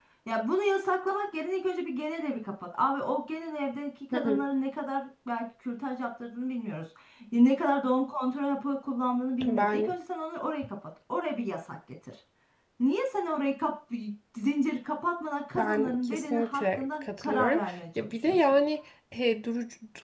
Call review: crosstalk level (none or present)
present